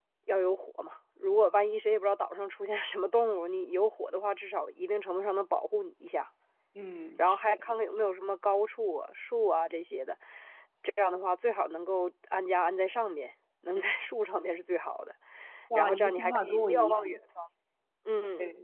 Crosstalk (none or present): present